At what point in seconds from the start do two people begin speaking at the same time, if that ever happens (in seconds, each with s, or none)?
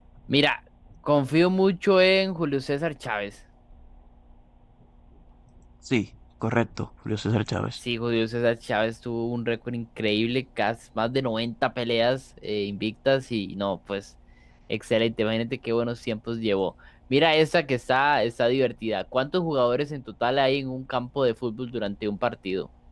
none